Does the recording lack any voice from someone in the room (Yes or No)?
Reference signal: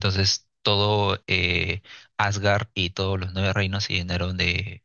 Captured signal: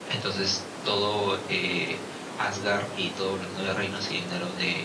Yes